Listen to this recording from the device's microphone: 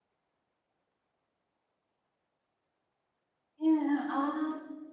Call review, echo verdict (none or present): none